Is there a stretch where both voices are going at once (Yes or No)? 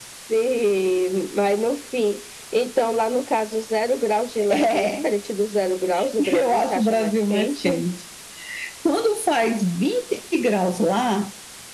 Yes